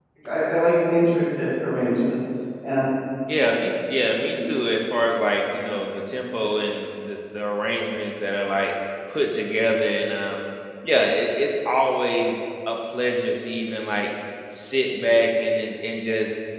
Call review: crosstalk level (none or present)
none